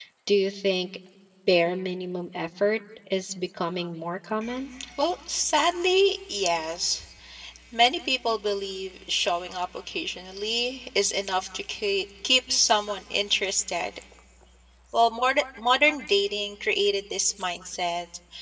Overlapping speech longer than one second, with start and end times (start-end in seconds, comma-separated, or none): none